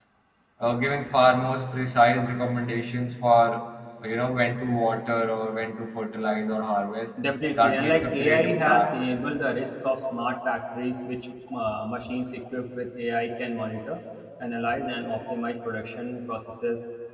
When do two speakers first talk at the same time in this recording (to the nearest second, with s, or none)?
8 s